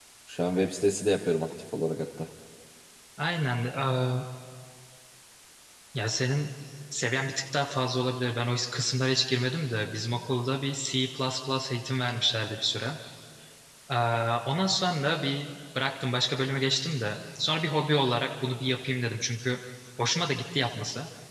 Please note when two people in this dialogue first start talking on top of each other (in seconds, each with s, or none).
none